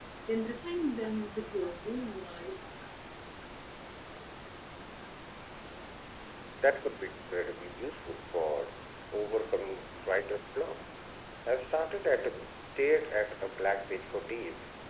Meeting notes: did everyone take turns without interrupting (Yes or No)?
Yes